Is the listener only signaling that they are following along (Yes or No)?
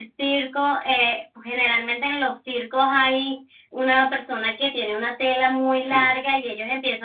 Yes